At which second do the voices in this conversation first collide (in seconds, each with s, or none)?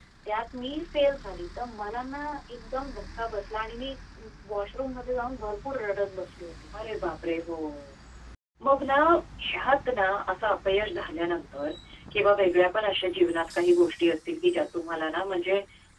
none